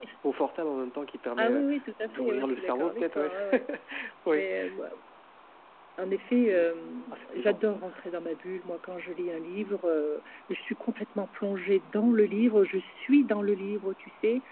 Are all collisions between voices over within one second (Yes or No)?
No